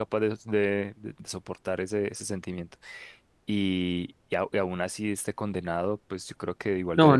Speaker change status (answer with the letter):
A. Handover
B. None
A